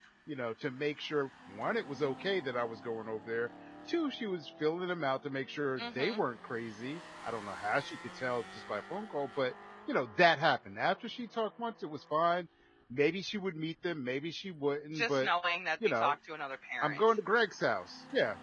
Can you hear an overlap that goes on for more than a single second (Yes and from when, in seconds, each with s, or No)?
No